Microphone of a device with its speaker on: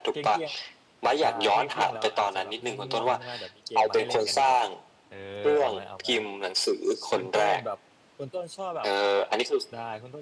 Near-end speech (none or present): present